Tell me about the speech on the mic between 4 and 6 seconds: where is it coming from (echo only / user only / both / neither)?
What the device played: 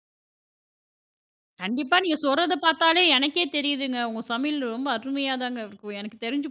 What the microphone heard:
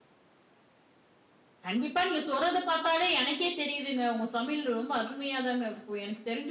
echo only